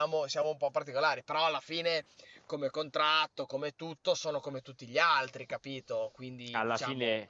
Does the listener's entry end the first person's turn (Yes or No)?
Yes